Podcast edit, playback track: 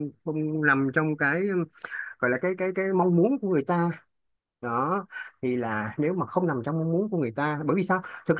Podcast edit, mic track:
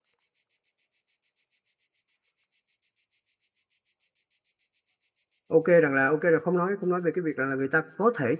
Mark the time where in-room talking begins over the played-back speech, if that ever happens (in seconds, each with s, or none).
5.5 s